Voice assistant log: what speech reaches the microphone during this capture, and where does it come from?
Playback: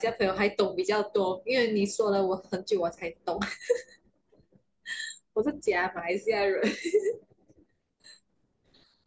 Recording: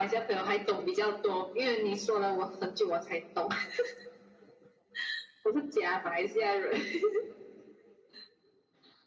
echo only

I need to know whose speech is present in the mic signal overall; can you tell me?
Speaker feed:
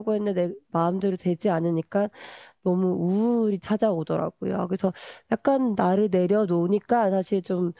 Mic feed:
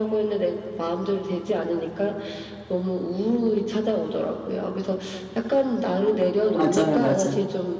both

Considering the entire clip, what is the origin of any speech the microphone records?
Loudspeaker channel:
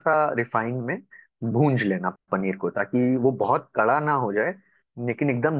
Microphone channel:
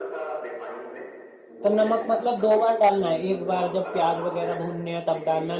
both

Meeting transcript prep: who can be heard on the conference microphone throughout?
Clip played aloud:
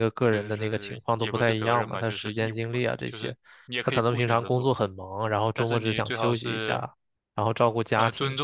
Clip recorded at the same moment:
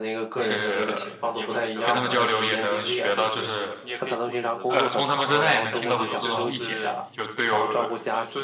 both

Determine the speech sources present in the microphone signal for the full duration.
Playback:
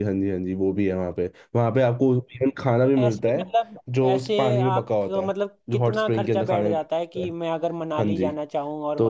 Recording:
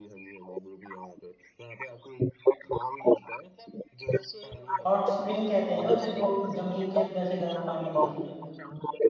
both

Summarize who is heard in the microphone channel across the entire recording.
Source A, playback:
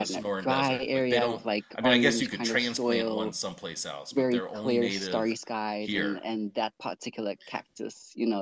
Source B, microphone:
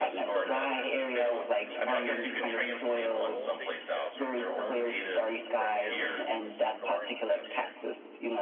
both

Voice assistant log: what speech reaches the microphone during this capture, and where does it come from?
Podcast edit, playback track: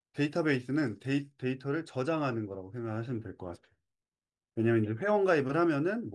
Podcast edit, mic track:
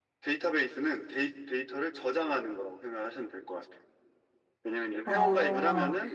both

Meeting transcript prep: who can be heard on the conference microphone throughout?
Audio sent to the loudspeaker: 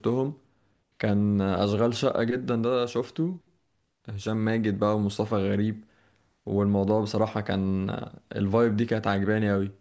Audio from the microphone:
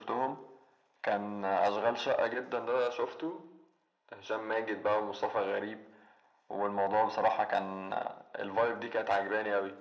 echo only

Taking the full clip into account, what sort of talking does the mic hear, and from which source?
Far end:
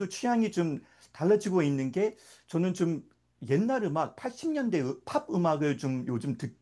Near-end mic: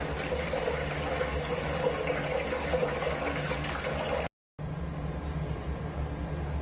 neither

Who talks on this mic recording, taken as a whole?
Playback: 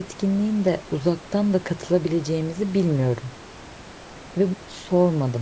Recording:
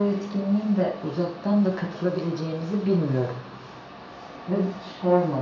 echo only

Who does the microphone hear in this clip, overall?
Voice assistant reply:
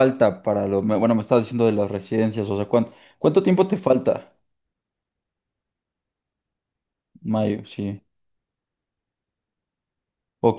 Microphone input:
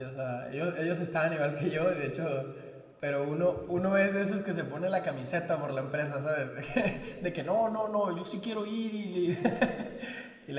user only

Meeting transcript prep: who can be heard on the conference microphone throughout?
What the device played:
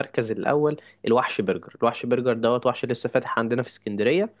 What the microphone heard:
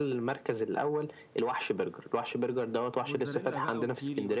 both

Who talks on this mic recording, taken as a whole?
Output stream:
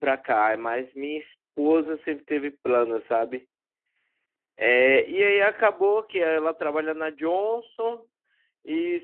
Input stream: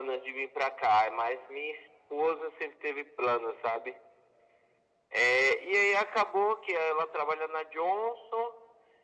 echo only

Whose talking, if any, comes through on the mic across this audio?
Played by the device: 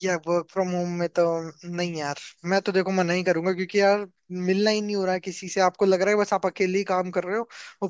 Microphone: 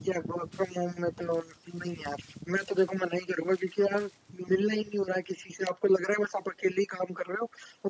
echo only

